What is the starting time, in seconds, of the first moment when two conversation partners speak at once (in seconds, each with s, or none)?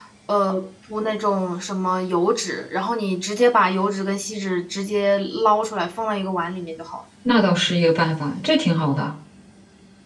none